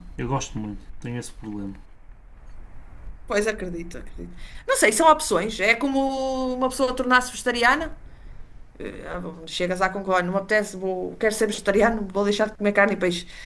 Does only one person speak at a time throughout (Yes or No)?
Yes